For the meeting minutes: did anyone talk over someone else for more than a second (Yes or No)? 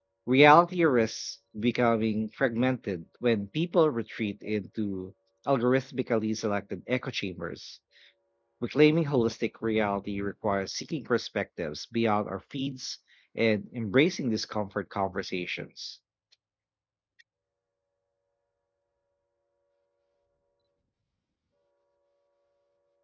No